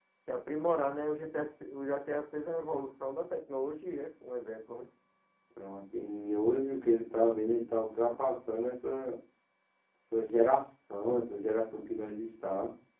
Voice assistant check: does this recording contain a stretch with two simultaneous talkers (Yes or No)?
No